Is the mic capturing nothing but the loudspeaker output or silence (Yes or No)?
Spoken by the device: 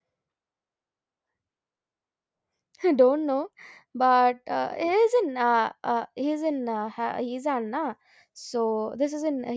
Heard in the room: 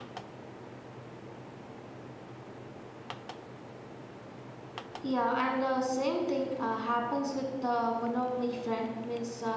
No